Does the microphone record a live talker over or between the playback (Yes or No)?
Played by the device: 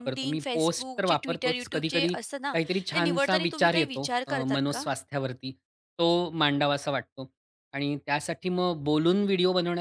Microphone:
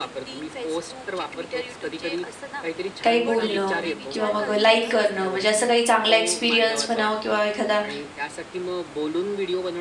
Yes